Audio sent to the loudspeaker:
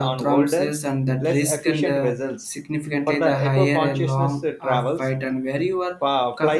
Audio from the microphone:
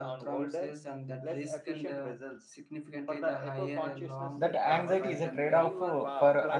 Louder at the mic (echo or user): user